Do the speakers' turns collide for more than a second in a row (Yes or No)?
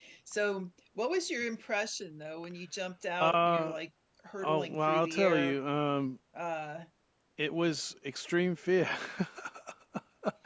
Yes